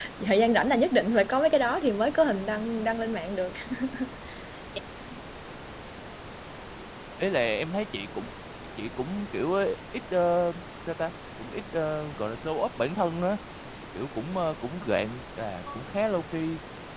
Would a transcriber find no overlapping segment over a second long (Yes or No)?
Yes